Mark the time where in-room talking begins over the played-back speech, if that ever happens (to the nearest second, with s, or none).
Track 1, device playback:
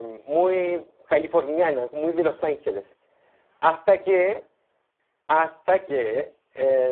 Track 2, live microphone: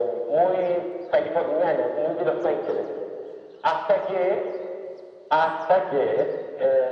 none